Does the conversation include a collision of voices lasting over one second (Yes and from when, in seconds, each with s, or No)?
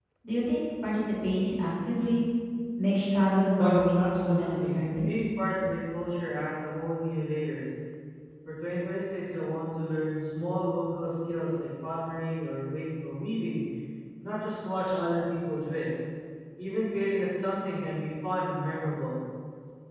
Yes, from 3.6 s